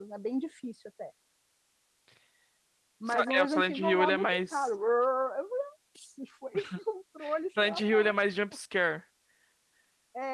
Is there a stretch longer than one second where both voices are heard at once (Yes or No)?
Yes